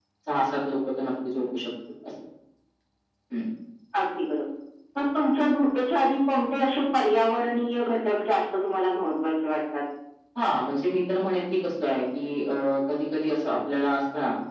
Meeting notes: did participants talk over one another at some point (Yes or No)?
No